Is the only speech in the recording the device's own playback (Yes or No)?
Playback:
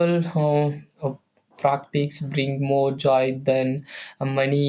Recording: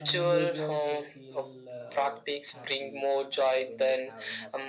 No